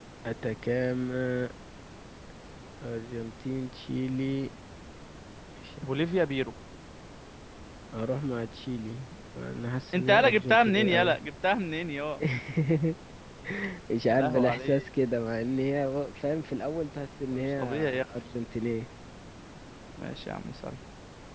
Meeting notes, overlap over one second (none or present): present